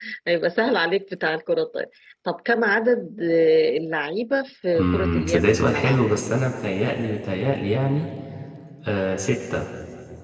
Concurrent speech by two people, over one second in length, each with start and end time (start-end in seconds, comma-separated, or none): 4.8-6.0